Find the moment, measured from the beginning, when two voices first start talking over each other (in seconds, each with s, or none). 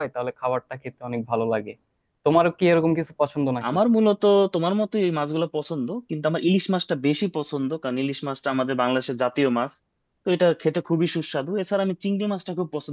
none